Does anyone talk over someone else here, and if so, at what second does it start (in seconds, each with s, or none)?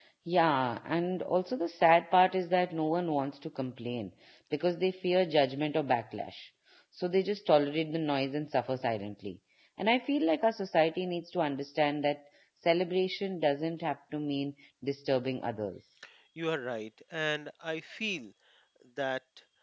none